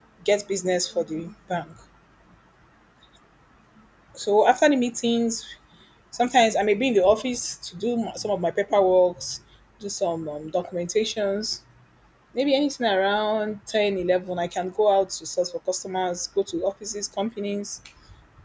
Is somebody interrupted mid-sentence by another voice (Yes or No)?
No